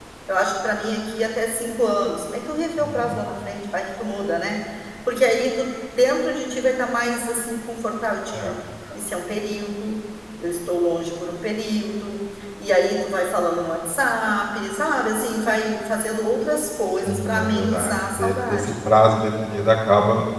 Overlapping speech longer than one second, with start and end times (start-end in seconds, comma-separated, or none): 17.1-18.7